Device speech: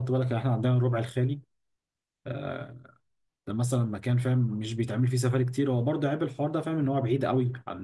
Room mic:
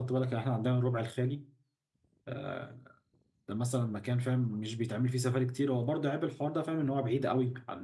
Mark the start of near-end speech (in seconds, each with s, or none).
none